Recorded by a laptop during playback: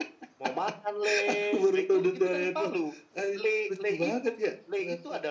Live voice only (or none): none